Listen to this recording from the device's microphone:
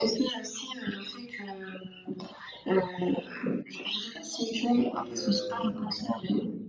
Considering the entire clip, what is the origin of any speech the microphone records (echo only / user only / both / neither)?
both